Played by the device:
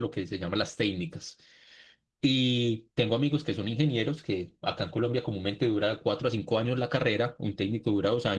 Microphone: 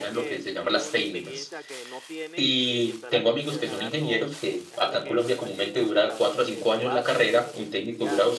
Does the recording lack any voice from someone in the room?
No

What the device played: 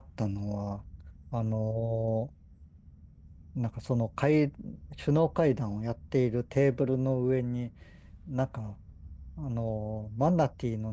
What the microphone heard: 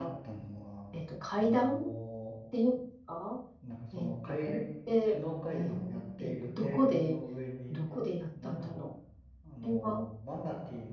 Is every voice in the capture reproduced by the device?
No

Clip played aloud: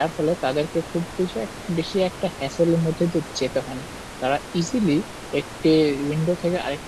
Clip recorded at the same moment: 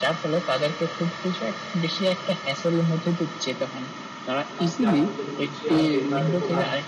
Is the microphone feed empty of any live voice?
No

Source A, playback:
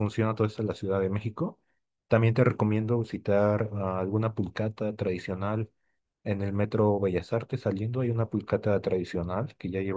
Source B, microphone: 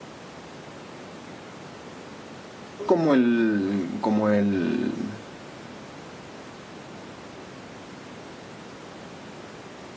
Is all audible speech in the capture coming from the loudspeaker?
No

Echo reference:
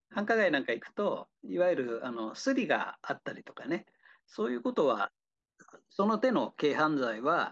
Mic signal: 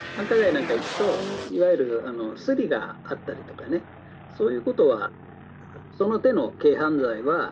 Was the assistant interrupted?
No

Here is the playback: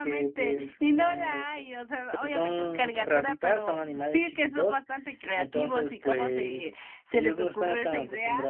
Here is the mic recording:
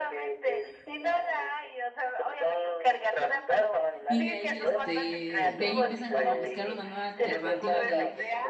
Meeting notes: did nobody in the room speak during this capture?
No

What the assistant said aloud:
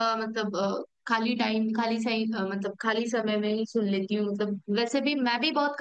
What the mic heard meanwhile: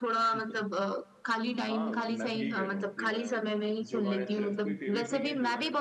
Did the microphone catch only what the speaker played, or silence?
No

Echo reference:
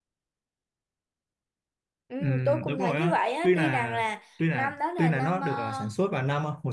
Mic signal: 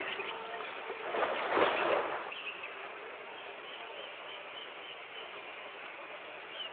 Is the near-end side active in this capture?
No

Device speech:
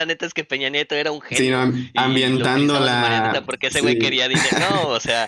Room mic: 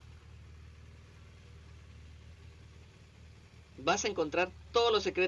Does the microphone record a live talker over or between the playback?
Yes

